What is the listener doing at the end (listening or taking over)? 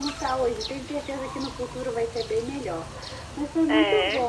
listening